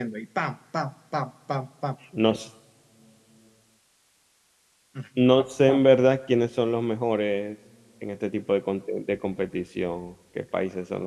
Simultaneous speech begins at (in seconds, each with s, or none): none